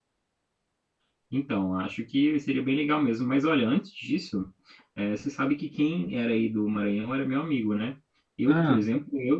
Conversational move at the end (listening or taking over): listening